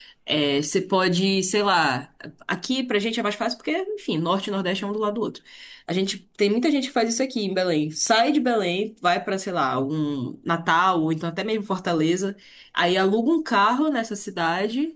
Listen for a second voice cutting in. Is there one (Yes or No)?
No